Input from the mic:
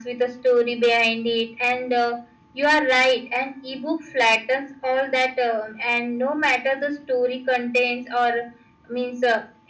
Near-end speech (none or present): none